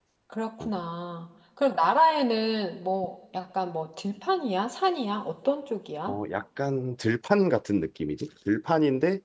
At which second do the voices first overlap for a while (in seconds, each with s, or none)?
none